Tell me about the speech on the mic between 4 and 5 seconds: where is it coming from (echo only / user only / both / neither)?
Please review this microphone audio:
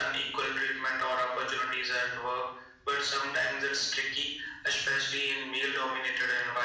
echo only